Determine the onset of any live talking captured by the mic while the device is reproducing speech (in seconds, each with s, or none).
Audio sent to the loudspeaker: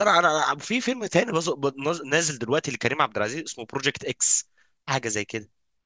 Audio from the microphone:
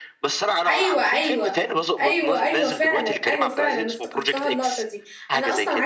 0.7 s